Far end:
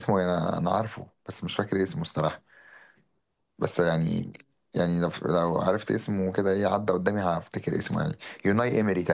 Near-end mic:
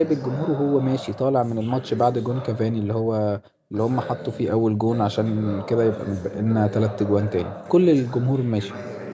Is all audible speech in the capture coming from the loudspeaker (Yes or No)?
No